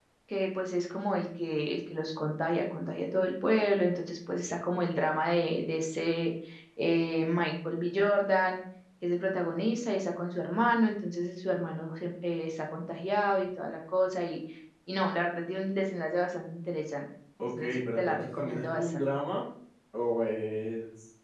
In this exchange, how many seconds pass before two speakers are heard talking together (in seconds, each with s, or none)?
17.4 s